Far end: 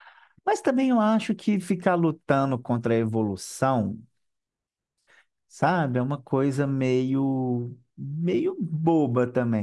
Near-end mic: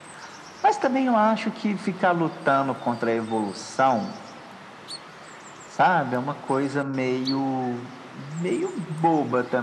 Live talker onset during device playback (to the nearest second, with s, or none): none